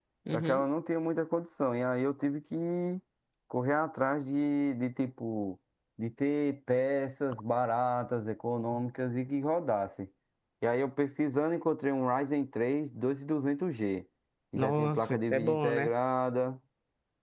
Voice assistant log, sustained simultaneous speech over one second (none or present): present